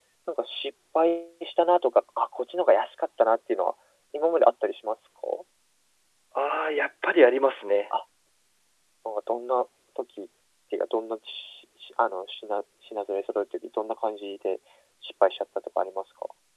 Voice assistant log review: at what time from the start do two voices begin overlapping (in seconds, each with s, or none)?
none